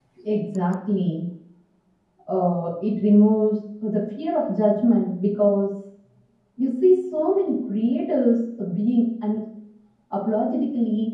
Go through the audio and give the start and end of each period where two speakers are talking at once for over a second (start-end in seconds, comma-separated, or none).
none